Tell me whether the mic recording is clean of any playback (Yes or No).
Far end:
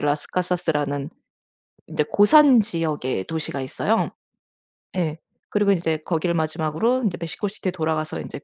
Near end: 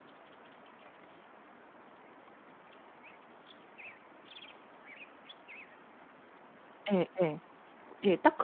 Yes